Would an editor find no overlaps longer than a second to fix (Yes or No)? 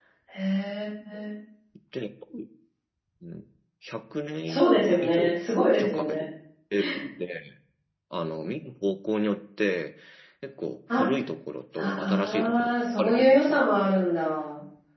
No